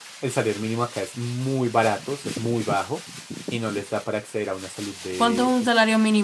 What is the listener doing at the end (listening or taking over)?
taking over